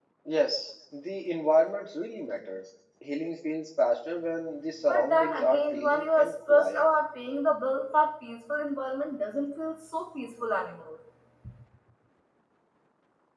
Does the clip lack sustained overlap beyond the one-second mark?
No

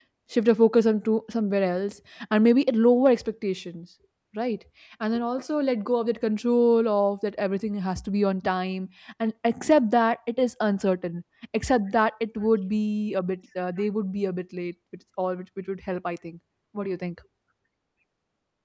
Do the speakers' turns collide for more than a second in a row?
No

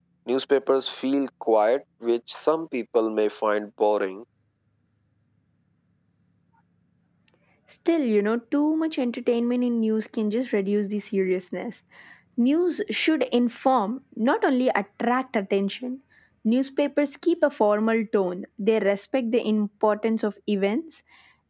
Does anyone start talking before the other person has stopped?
No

